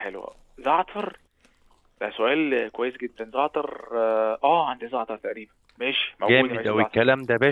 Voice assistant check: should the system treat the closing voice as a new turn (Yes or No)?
Yes